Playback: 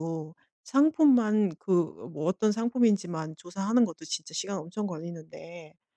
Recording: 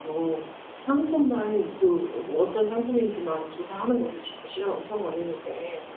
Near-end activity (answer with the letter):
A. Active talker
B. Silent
B